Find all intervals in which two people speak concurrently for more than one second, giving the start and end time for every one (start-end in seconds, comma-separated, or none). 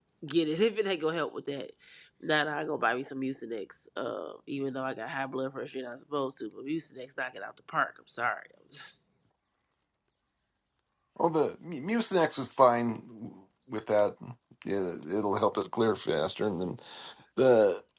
none